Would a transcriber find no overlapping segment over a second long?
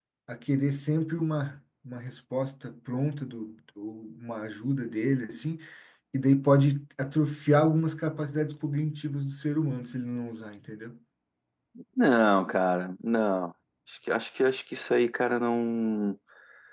Yes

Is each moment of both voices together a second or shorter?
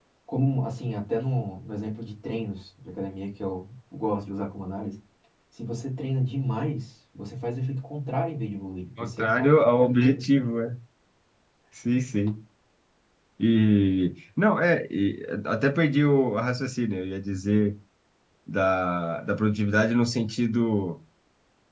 No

